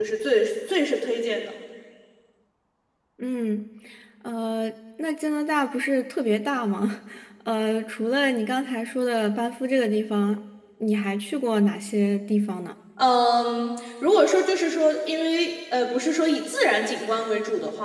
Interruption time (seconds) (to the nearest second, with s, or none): none